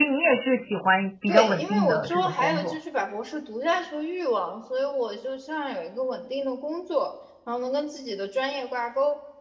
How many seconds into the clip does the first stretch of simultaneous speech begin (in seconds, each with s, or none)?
1.3 s